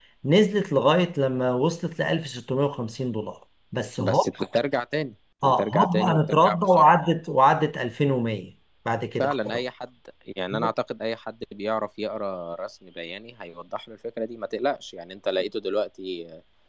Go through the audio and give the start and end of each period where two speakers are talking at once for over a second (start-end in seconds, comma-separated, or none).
5.4-7.0